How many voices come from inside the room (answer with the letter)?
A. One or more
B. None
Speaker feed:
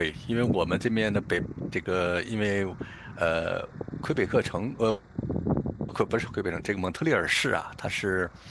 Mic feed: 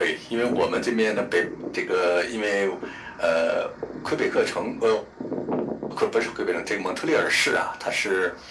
B